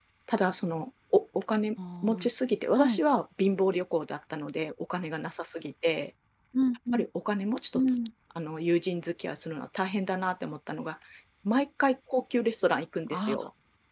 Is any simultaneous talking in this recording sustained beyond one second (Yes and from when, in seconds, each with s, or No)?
No